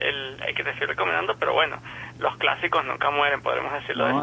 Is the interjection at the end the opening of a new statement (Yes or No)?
Yes